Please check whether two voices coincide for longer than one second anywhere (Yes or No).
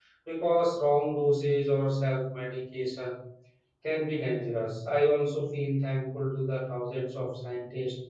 No